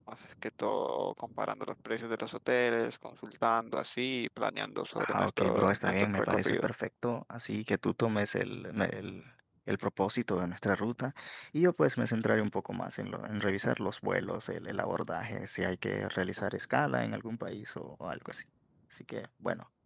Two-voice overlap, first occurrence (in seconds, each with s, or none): 5.0 s